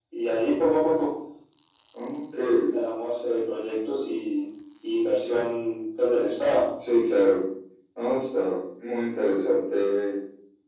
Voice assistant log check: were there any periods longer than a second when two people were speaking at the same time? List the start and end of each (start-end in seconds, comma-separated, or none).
none